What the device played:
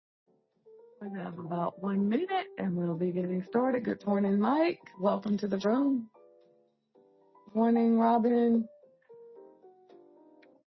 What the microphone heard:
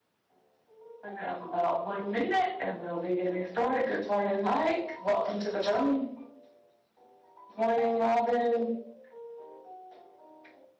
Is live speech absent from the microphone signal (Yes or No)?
Yes